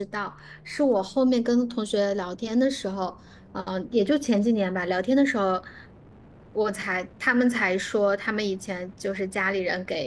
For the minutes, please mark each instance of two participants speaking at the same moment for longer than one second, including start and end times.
none

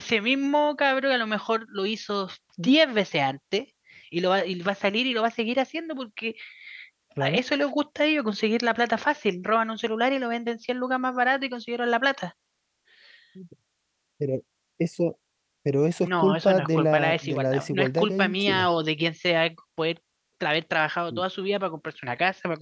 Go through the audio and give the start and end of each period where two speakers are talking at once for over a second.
16.0-18.7

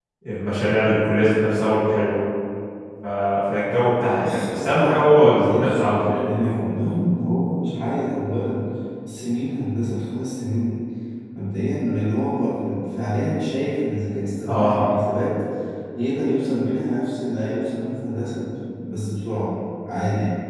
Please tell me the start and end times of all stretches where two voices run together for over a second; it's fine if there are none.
4.1-6.2

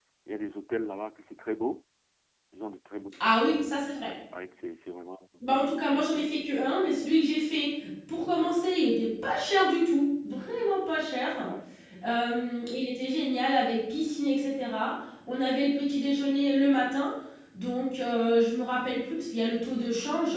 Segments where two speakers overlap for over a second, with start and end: none

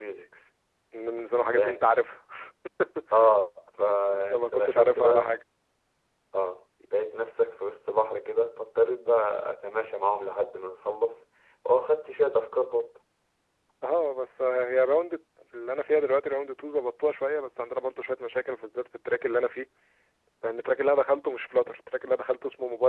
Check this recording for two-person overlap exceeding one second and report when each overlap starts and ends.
4.1-5.3

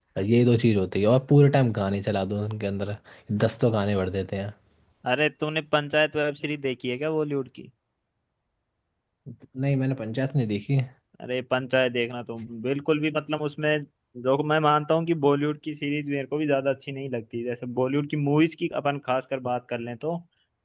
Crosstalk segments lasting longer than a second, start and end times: none

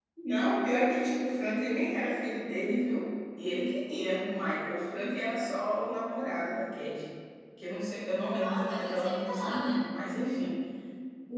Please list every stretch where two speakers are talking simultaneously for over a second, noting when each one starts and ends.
8.4-9.8

